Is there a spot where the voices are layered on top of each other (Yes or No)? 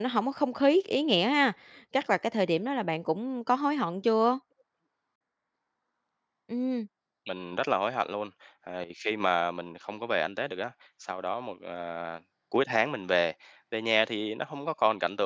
No